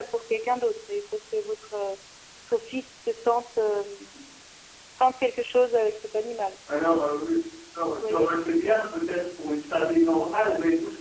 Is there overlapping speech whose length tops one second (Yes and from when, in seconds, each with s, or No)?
No